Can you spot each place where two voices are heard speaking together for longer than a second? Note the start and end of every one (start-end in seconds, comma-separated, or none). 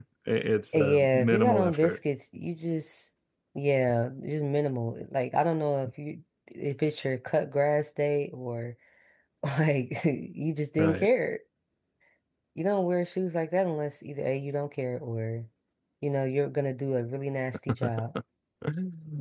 0.8-2.0